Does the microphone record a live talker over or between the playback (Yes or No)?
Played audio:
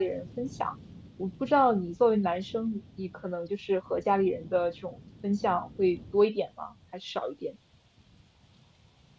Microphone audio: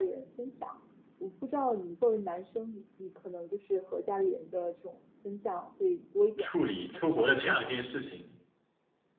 Yes